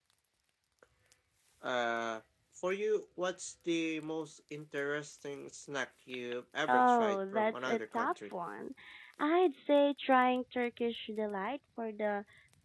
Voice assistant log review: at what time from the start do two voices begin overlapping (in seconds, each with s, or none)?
6.7 s